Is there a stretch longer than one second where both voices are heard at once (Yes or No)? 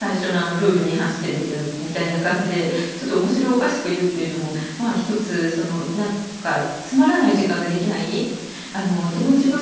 No